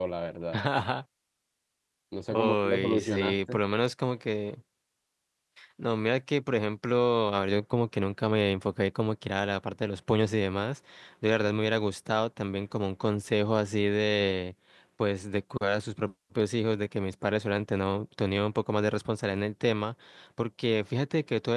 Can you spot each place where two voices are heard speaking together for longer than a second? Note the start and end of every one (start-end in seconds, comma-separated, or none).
2.3-3.6